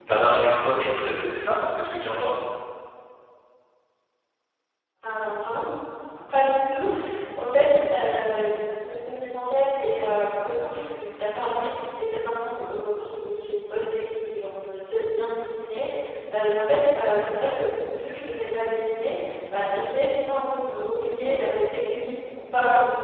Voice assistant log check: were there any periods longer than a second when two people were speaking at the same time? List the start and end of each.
none

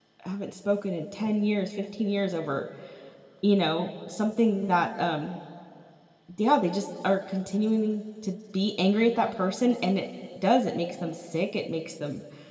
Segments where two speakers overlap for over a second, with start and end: none

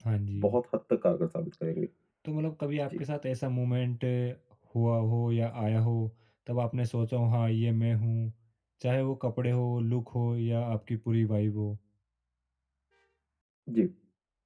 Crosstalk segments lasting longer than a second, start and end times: none

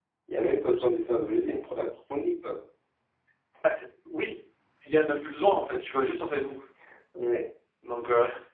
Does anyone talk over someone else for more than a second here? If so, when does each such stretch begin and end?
none

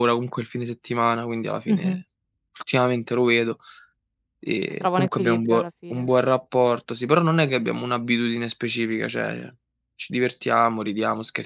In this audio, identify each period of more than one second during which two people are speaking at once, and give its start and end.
4.8-6.1

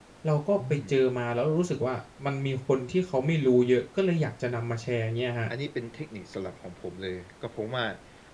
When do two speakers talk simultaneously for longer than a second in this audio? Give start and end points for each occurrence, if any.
none

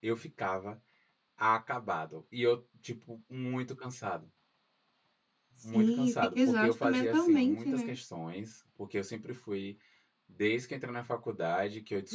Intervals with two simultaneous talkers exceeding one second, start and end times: 5.7-7.9

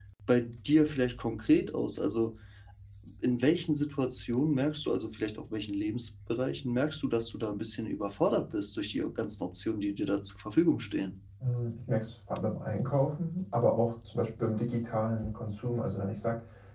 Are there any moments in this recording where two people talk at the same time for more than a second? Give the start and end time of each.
none

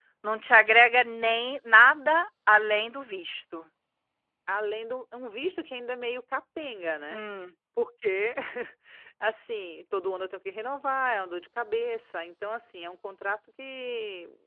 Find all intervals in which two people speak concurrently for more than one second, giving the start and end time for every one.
none

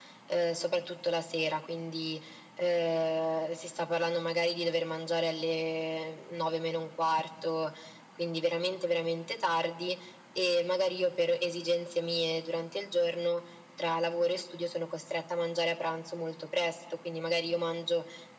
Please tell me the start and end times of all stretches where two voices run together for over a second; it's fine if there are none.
none

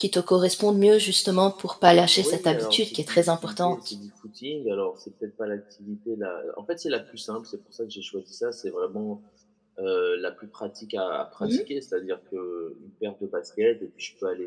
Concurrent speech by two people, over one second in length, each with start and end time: 2.1-3.9

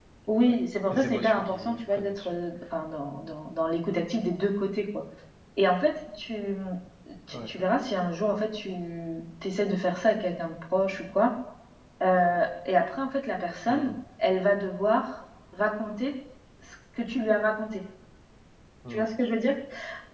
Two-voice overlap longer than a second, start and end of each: 0.9-2.3

